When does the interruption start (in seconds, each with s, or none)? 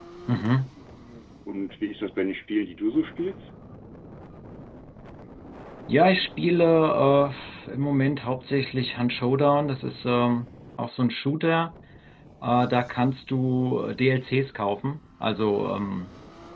none